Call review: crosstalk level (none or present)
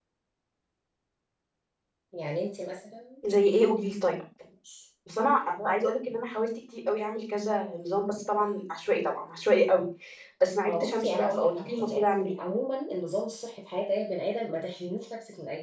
present